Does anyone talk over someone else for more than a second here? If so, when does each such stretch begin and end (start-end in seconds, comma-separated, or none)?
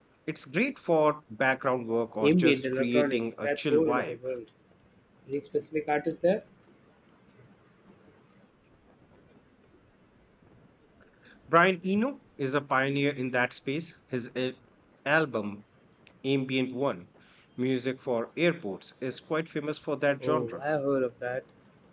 2.2-4.2